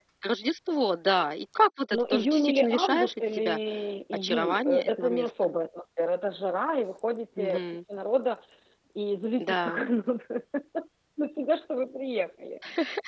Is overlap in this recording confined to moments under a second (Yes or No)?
No